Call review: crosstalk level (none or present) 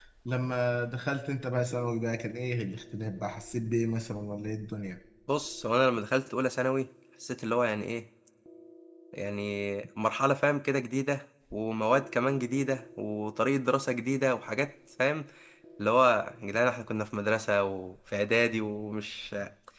none